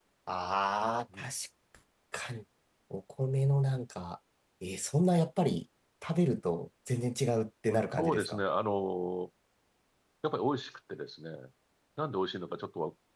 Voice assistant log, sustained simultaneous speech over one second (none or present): none